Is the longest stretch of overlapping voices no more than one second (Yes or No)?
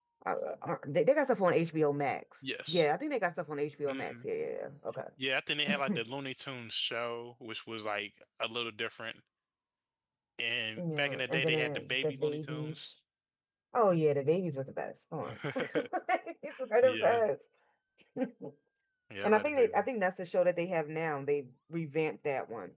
No